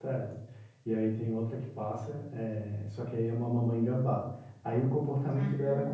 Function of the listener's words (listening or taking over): listening